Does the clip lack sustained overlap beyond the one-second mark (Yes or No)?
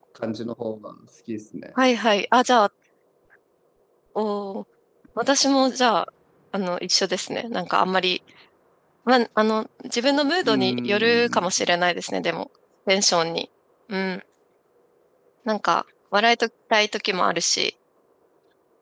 No